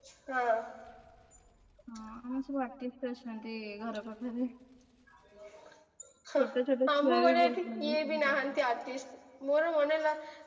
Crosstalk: present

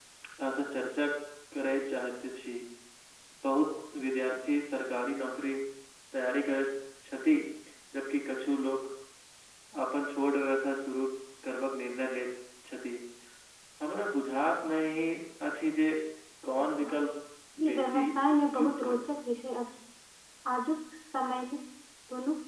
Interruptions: present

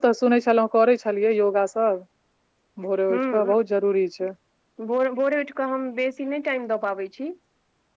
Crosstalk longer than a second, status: none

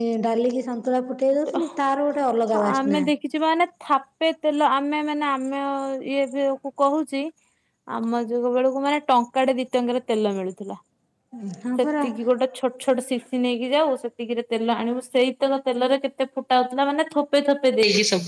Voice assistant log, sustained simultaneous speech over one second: none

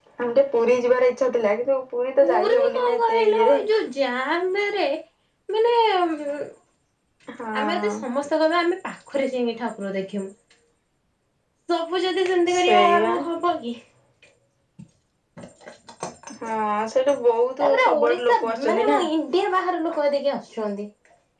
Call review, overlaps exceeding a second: present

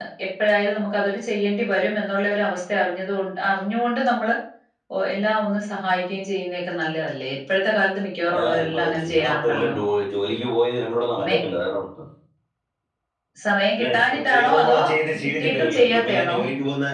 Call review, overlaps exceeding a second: present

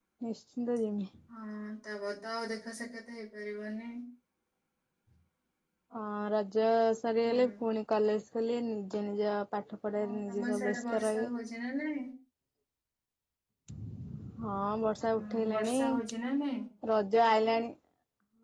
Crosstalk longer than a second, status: present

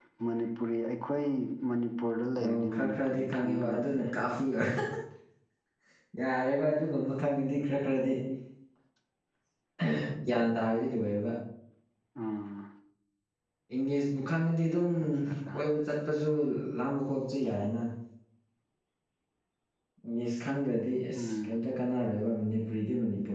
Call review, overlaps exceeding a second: present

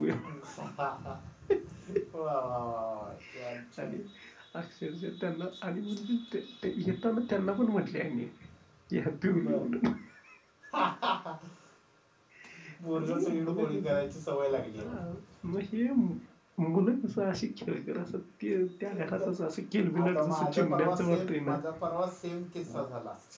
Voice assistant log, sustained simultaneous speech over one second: present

